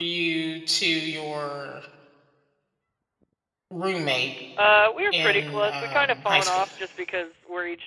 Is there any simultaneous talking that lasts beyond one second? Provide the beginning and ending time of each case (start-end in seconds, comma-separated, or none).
5.1-6.6